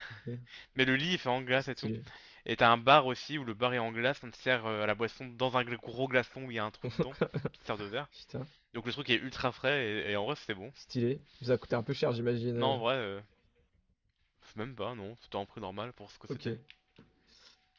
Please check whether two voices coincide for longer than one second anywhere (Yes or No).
No